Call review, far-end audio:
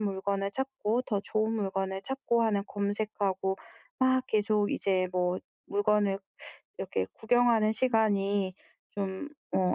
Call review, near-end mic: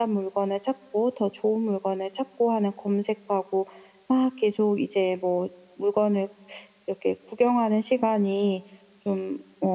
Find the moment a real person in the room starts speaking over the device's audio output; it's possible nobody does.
none

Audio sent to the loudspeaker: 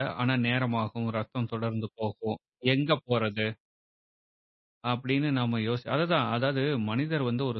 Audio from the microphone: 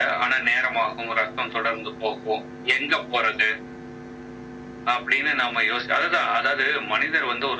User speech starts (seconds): none

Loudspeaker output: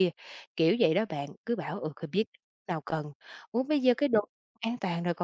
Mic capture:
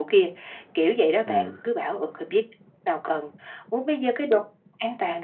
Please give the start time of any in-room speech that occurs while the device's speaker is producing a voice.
1.2 s

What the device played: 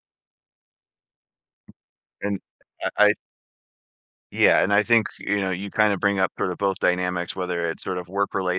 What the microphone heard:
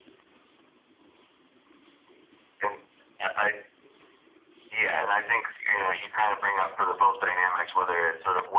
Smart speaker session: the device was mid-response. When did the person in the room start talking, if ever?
none

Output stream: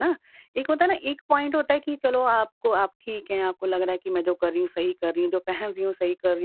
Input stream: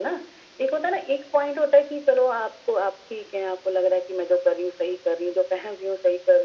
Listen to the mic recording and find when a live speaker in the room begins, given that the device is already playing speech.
none

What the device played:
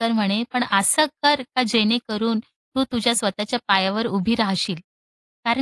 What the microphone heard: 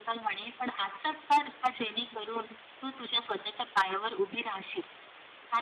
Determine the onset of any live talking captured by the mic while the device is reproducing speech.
none

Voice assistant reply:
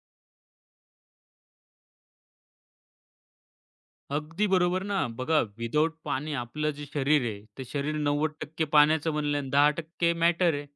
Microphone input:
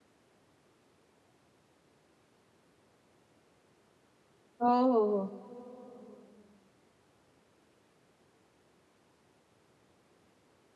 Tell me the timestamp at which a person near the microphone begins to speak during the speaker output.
4.6 s

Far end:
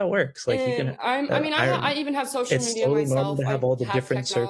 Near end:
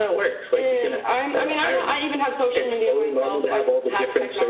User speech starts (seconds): none

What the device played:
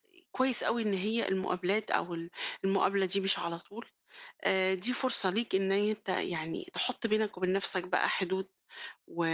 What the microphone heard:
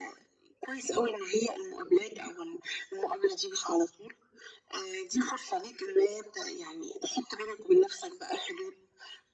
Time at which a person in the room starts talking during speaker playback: none

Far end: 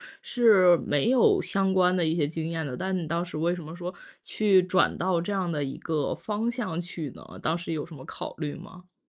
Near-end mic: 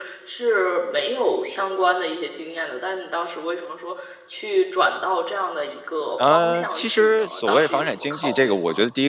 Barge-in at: 6.2 s

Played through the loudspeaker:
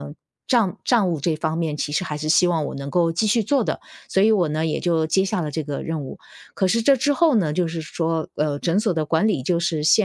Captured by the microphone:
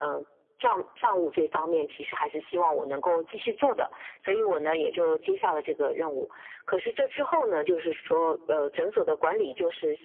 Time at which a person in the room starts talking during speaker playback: none

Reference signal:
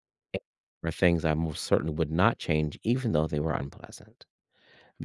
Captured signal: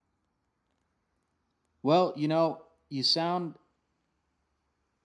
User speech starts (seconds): 1.8 s

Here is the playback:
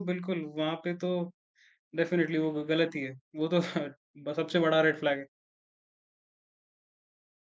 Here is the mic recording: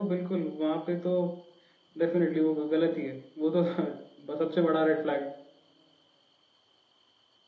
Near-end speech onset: none

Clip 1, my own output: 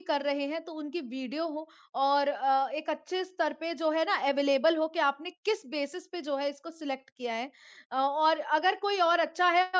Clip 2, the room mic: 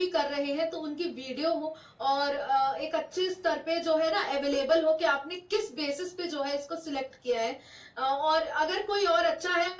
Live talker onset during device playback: none

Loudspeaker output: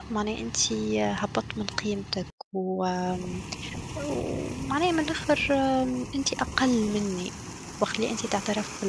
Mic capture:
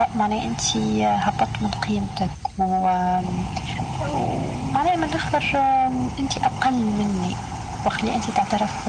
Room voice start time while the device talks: none

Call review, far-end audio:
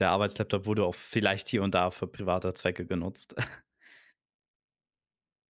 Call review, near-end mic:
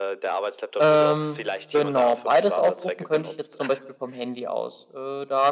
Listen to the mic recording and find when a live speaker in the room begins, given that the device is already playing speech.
0.8 s

